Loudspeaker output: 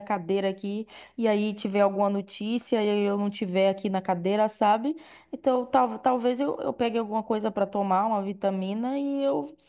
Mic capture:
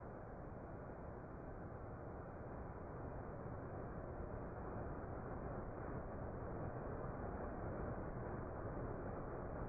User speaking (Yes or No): No